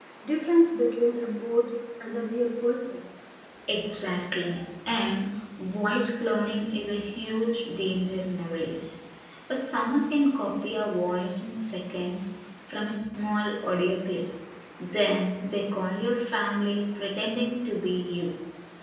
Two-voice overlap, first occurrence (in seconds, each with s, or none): none